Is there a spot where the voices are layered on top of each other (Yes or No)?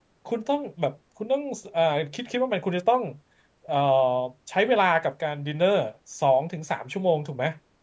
No